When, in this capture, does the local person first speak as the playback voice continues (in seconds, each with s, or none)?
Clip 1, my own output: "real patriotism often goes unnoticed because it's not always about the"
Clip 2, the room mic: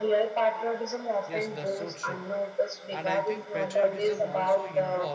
1.3 s